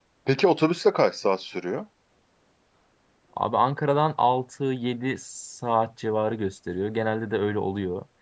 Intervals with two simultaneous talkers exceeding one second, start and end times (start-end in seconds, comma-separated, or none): none